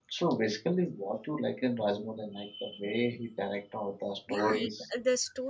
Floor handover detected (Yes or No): Yes